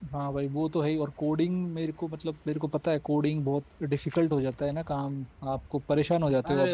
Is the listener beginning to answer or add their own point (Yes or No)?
Yes